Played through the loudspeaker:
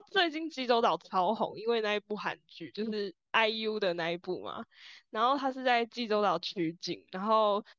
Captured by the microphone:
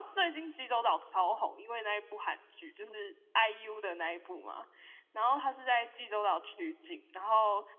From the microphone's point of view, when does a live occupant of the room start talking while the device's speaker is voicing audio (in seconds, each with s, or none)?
none